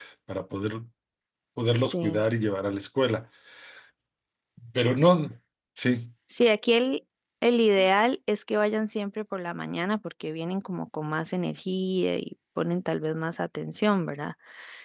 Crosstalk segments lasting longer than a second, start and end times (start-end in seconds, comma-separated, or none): none